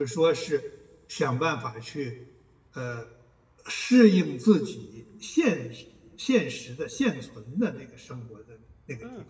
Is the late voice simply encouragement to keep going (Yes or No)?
No